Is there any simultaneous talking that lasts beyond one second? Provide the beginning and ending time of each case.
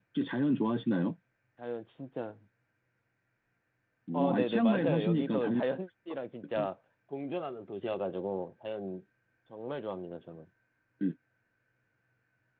4.1-5.6

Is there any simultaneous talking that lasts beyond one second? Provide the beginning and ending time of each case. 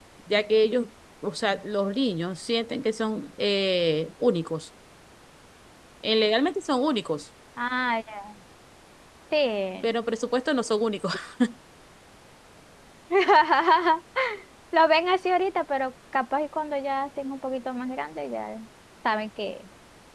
none

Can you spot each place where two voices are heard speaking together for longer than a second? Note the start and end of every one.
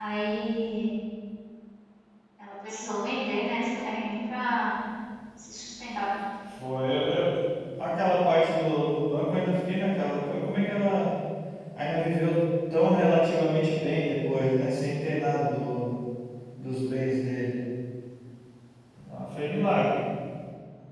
none

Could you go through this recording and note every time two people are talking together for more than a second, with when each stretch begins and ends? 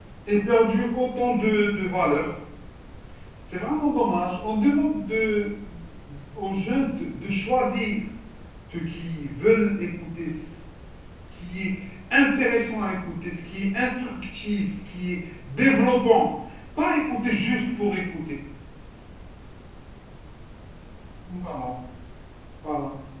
none

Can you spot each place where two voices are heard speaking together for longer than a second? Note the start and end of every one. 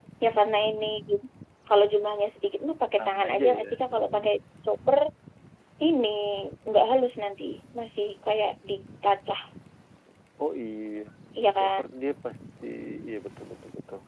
3.0-4.3

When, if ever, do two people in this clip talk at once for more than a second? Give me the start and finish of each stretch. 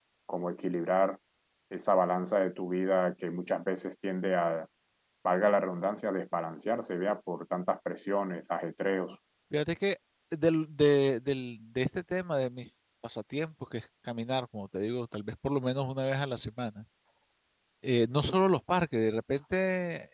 none

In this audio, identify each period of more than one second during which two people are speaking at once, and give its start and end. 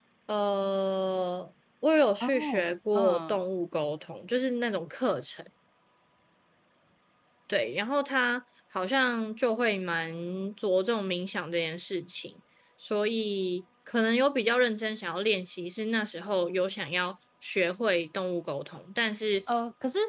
2.2-3.4

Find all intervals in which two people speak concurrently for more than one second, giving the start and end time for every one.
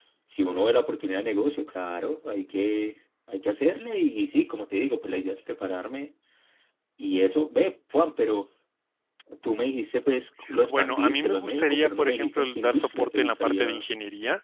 10.6-13.9

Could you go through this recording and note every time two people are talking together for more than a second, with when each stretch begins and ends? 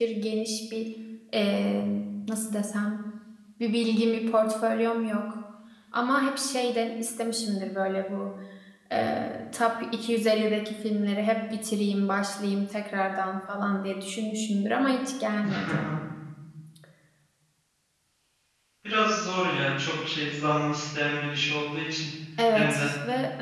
none

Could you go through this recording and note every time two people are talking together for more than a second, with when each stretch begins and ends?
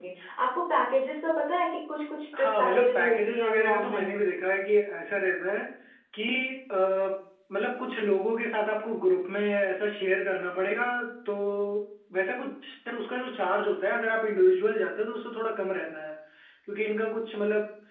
2.4-4.2

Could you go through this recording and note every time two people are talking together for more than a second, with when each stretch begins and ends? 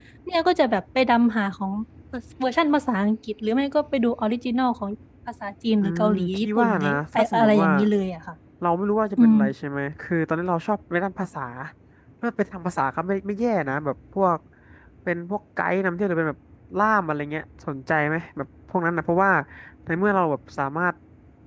5.8-7.7

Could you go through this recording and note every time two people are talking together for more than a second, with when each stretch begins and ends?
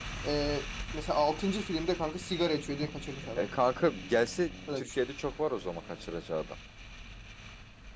none

